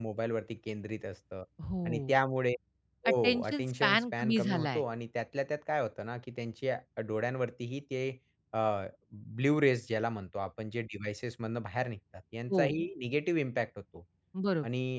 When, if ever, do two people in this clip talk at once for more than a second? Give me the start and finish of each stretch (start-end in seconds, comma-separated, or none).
3.1-4.8